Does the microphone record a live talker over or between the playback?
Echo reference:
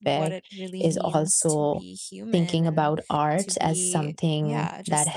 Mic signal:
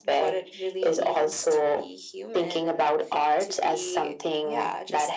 No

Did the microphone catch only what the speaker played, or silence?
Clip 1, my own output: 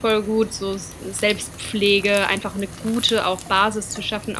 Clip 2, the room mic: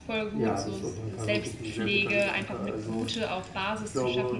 No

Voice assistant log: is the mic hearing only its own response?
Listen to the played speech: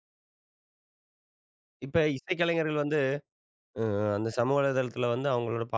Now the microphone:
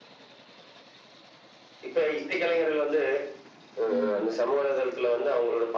No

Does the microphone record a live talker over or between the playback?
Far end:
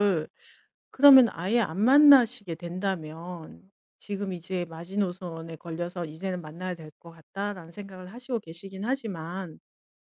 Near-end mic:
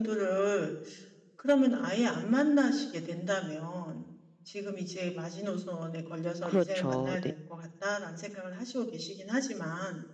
Yes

